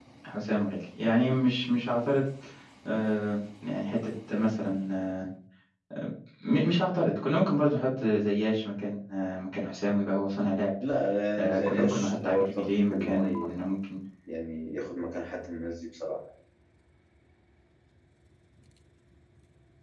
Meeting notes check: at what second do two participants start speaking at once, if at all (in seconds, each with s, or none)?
11.4 s